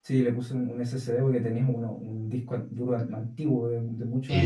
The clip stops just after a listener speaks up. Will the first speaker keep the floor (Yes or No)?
No